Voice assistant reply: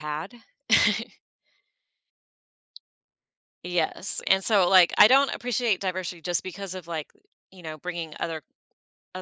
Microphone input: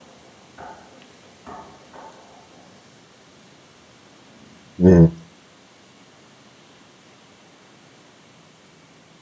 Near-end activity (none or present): present